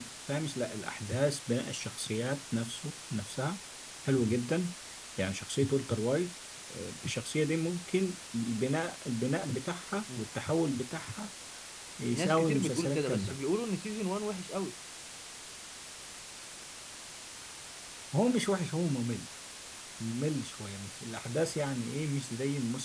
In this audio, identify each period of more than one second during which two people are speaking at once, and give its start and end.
12.1-13.4

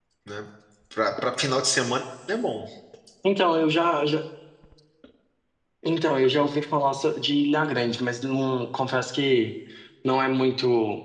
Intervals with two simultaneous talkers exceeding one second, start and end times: none

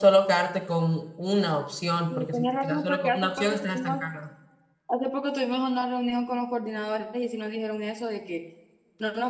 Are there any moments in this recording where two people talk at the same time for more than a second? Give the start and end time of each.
2.1-4.0

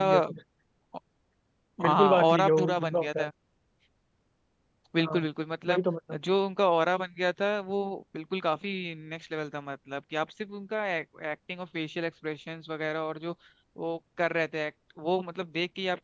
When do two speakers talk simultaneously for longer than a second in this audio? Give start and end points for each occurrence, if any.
1.9-3.3

